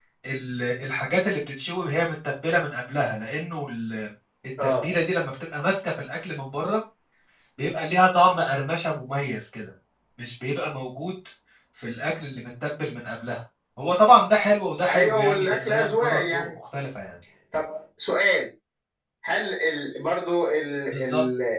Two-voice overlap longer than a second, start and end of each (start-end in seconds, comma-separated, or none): 14.9-16.5